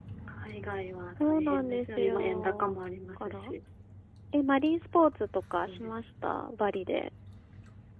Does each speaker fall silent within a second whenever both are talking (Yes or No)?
No